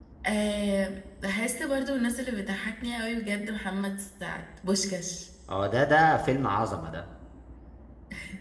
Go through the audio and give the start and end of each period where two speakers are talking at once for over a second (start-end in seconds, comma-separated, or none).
none